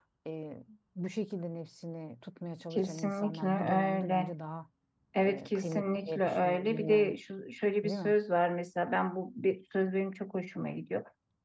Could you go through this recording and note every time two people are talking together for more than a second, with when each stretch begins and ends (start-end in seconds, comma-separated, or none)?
2.7-4.3, 5.2-7.1